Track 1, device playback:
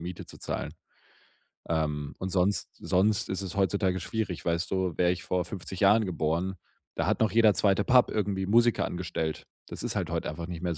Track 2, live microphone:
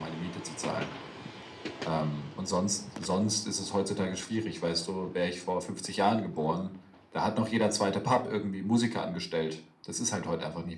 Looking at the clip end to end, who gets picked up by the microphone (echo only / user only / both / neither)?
echo only